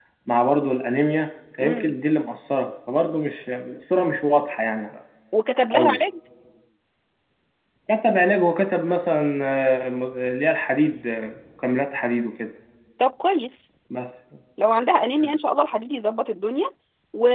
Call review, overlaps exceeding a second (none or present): none